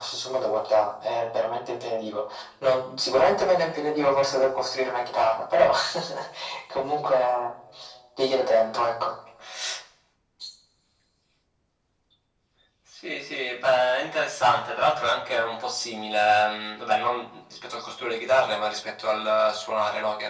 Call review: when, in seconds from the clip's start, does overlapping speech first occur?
none

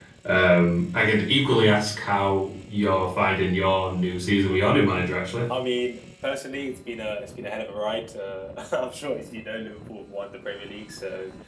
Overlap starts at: none

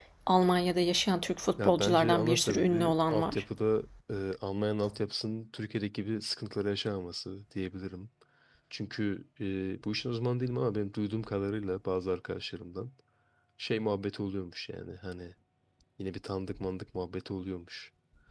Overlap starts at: 1.6 s

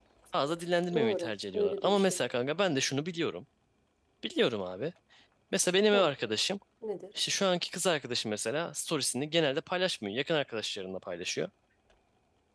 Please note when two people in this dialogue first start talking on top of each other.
0.9 s

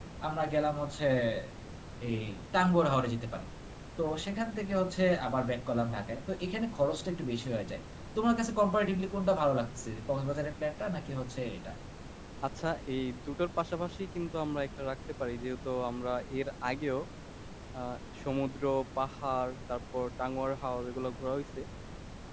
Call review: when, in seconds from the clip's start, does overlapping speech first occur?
none

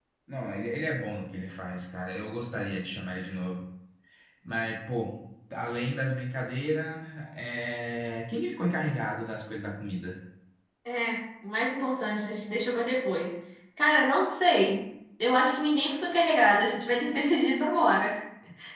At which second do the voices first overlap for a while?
none

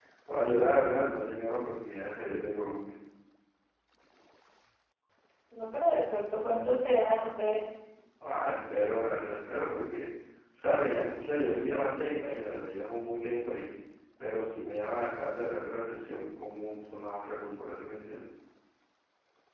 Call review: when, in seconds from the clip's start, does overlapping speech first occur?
none

